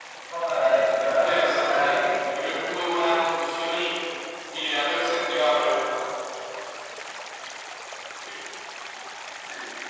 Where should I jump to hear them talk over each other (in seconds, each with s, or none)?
0.9 s